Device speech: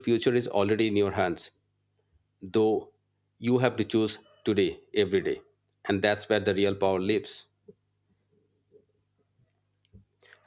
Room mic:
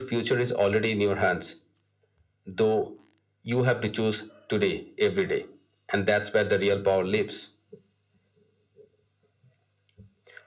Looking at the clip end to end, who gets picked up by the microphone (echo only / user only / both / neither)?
echo only